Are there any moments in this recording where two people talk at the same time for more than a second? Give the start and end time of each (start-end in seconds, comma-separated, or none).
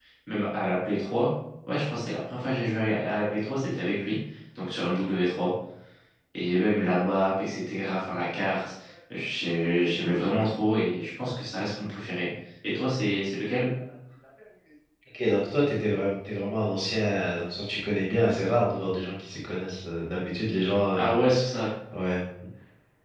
none